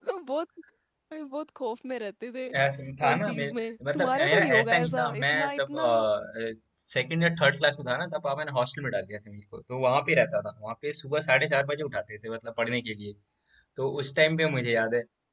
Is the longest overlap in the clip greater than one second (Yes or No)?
Yes